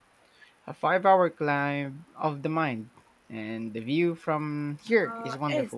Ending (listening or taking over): taking over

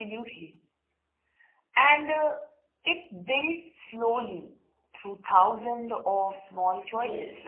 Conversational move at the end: taking over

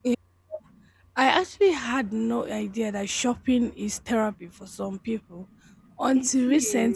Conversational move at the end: listening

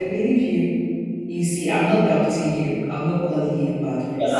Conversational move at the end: taking over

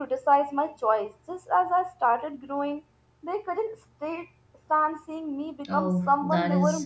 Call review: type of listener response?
taking over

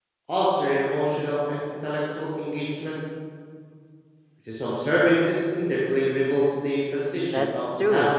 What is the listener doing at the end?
taking over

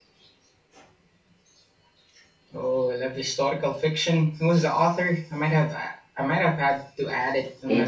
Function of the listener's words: taking over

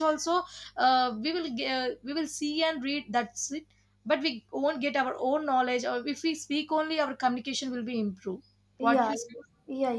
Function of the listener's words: taking over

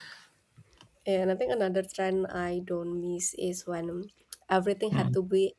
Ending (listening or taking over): listening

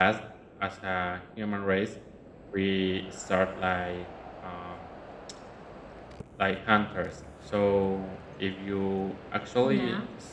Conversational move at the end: listening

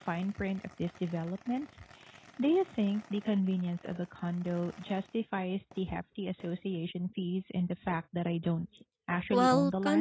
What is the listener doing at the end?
taking over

